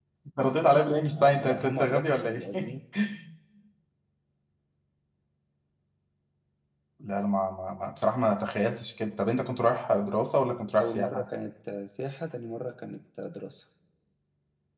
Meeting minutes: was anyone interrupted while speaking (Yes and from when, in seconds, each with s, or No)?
Yes, from 1.2 s